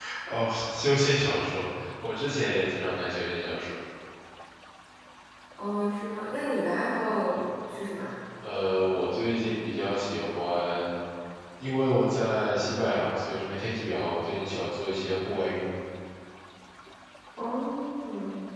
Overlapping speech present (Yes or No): No